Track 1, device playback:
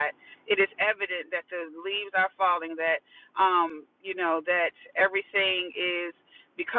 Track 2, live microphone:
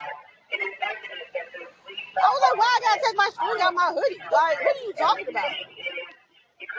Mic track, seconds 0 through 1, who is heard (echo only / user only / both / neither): echo only